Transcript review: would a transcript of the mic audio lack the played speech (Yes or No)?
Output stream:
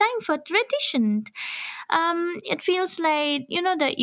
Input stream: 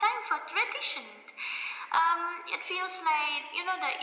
No